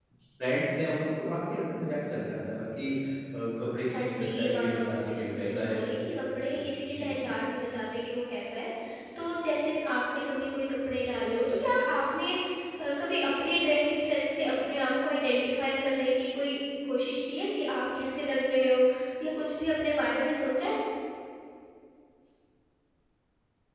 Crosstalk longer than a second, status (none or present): present